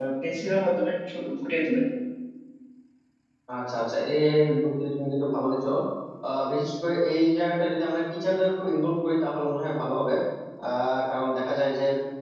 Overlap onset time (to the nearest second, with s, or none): none